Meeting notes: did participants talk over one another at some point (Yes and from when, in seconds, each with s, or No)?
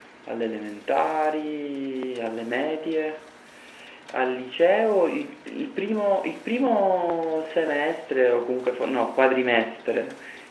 No